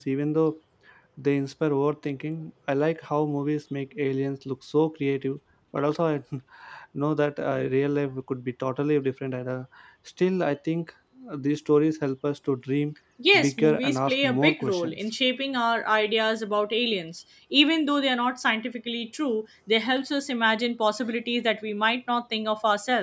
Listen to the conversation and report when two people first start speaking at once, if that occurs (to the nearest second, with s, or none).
13 s